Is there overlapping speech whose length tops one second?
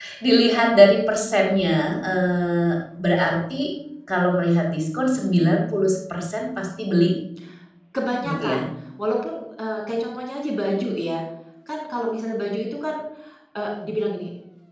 No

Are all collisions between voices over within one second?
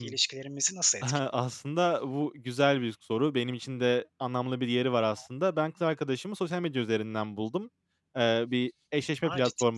Yes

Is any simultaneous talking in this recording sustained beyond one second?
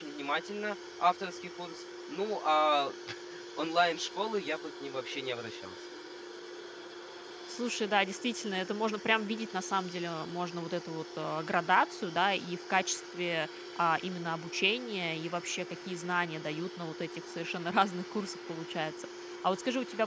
No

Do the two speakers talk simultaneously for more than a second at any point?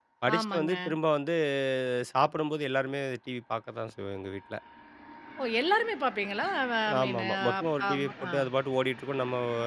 Yes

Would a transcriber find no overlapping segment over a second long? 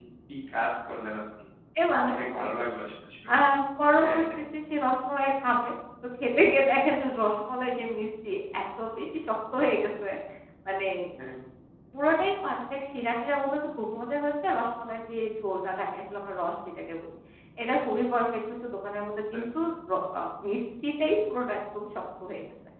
Yes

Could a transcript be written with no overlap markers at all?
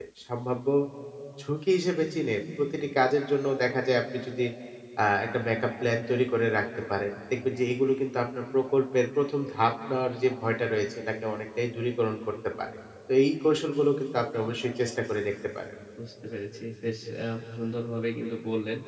Yes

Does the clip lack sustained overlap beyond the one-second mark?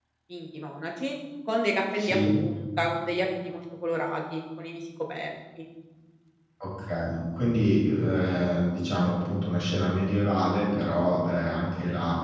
Yes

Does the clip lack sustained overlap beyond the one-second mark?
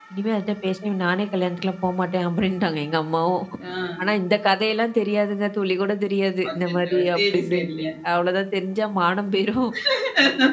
No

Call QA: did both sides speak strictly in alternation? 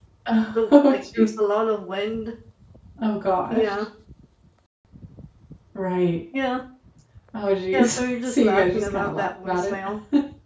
No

